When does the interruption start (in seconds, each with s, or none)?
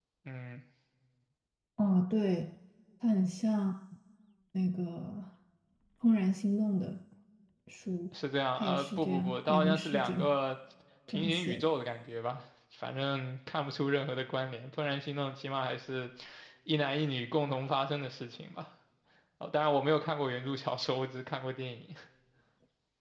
8.6 s